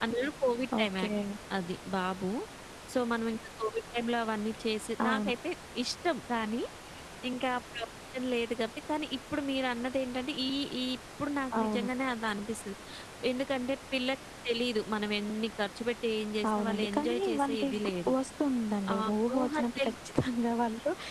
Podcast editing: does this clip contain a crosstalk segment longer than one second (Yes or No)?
Yes